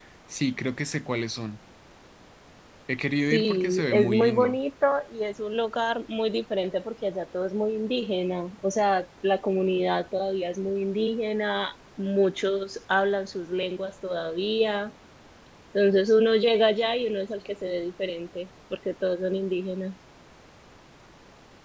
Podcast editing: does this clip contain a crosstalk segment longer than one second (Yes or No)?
Yes